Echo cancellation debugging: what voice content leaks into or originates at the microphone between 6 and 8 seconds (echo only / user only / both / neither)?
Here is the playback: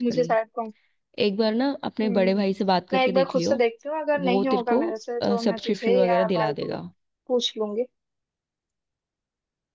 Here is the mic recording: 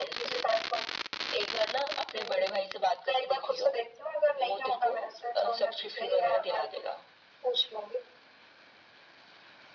echo only